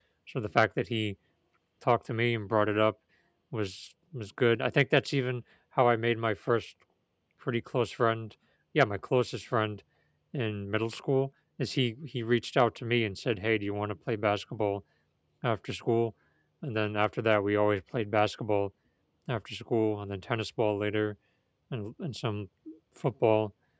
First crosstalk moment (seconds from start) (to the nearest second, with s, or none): none